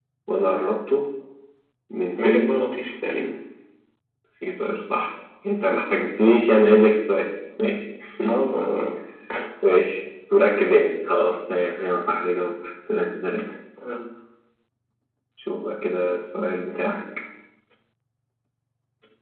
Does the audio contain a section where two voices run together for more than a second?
No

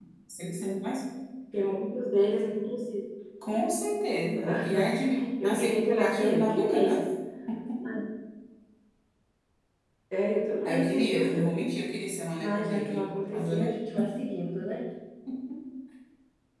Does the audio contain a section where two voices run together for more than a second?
Yes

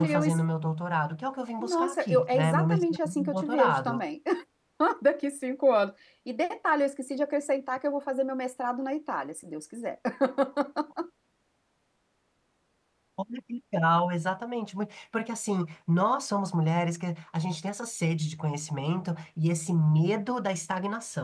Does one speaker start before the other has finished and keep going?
Yes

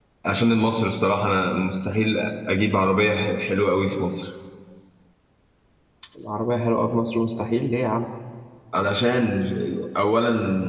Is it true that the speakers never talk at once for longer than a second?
Yes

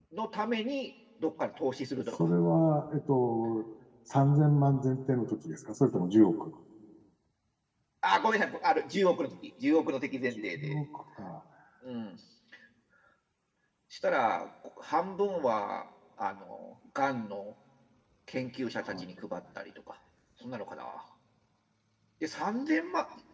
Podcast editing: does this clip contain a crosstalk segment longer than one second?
No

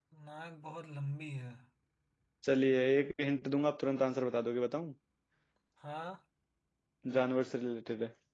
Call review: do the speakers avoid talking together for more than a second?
Yes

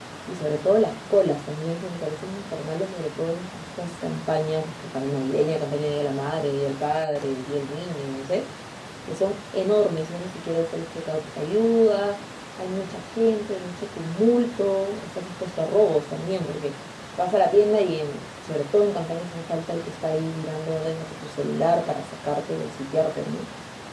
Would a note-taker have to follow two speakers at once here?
No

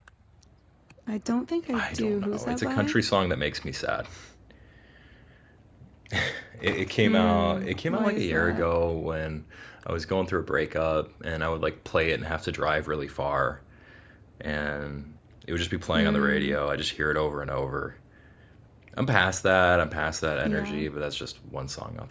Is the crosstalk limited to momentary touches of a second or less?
No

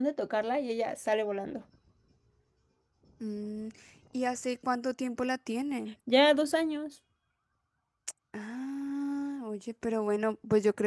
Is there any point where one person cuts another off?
No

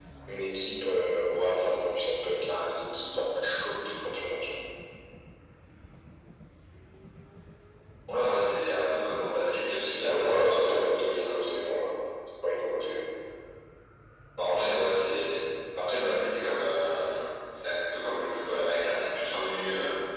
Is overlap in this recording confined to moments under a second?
No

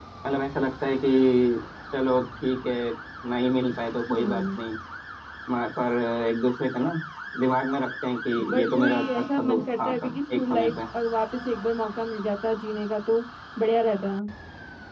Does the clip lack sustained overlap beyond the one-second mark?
No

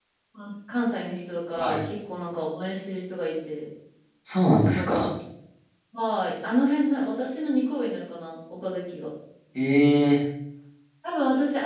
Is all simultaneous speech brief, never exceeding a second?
Yes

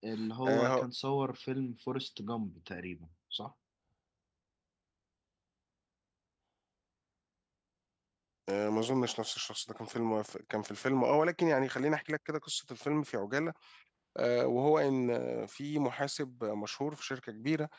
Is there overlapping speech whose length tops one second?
No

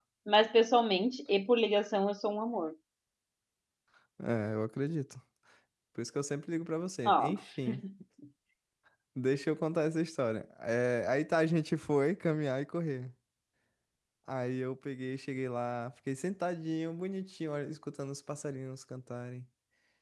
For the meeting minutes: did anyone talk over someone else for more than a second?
No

